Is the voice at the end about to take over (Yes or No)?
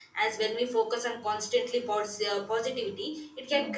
No